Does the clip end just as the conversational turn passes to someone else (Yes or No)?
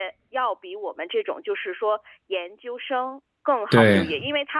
No